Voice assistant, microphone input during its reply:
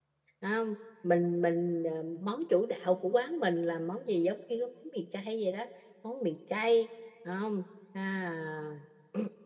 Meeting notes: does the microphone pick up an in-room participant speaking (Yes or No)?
Yes